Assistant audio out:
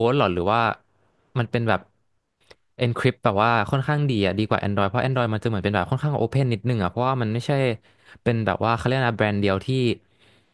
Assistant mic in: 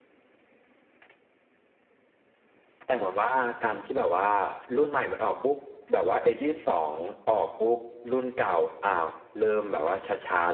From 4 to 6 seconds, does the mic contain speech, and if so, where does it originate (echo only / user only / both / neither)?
user only